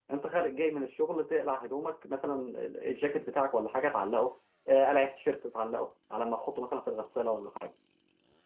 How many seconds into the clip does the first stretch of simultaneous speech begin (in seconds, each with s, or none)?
none